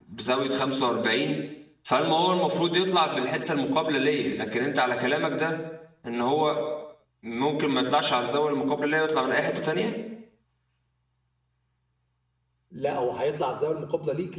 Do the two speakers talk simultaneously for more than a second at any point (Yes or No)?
No